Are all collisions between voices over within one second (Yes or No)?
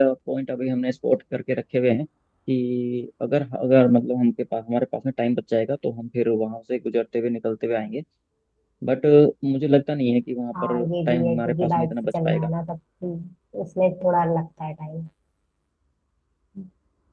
No